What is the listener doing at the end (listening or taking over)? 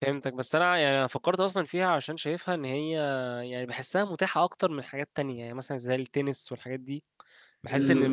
listening